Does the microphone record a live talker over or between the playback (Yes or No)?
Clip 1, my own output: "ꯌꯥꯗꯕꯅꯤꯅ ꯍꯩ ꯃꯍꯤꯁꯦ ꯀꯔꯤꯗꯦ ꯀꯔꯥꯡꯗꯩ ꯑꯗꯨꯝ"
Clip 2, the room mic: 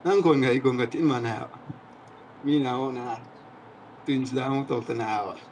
Yes